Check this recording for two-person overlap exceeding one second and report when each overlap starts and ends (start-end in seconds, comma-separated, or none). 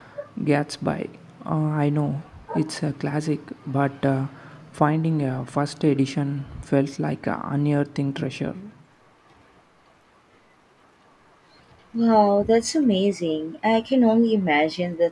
none